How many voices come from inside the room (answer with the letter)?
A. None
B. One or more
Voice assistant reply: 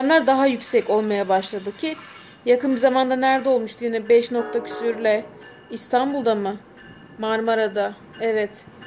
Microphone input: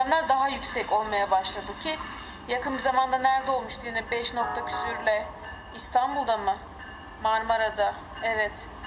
A